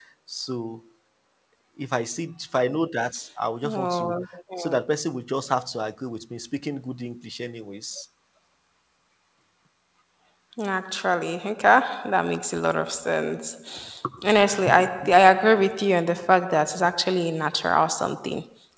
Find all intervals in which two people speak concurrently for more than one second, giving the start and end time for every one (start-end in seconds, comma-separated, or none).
none